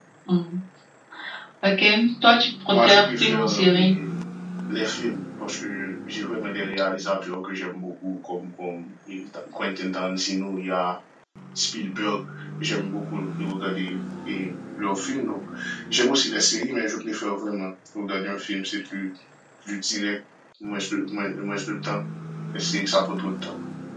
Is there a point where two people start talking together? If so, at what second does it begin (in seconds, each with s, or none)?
2.7 s